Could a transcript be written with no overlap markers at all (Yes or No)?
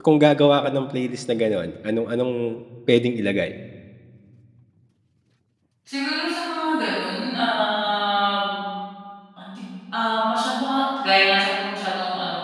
Yes